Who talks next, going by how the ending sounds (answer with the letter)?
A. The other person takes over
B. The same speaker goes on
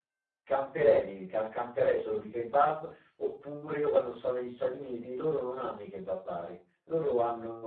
B